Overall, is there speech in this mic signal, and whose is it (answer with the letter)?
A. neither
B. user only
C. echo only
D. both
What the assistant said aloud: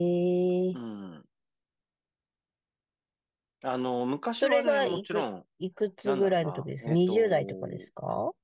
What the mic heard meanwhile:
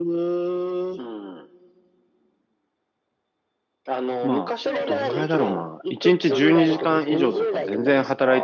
D